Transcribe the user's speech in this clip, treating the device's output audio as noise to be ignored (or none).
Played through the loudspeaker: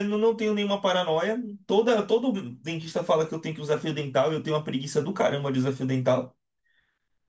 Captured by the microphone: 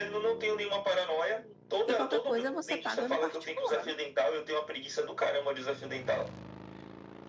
e qualquer coisa você paga no particular.